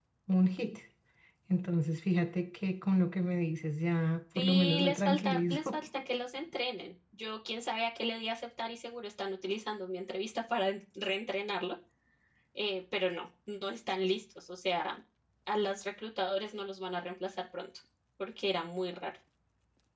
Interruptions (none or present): present